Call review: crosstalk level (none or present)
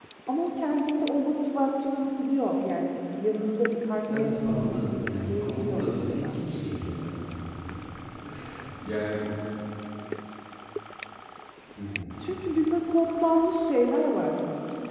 present